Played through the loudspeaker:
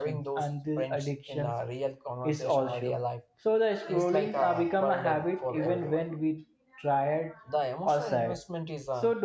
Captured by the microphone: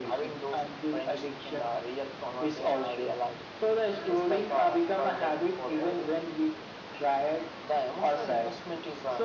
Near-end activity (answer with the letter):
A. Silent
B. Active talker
A